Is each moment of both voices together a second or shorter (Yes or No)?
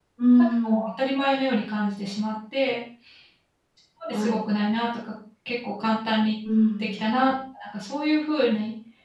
Yes